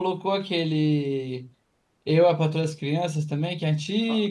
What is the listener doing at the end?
taking over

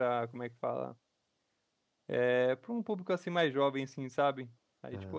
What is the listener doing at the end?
listening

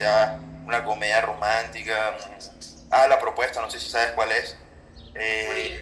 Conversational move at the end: listening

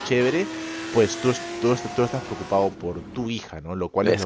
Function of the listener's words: listening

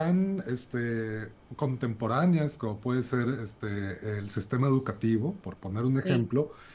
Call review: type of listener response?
listening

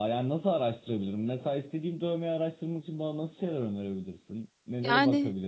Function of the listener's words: taking over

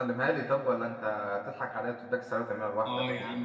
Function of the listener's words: taking over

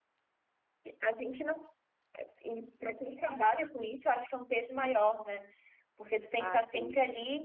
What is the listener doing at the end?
listening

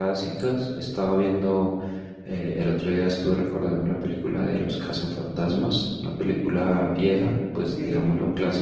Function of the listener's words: taking over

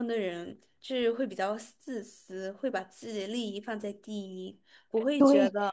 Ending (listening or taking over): taking over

